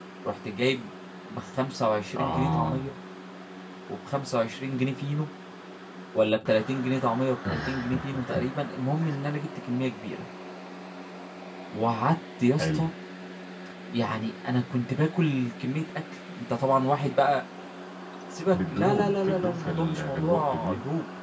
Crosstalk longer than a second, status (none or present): present